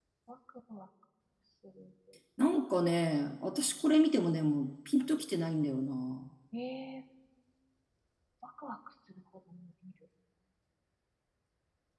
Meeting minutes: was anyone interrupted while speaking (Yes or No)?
No